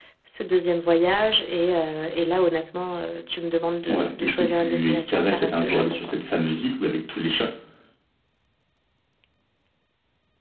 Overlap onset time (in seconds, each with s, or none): 3.9 s